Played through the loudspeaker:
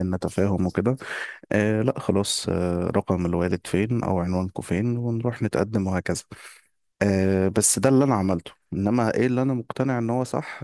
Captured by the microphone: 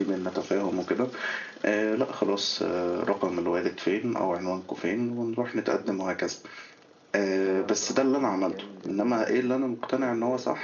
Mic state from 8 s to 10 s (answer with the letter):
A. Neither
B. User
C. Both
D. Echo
C